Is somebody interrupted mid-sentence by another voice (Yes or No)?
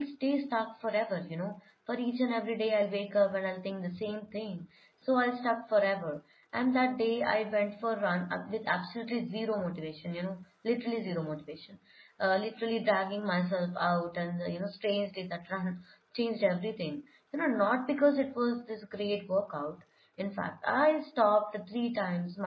No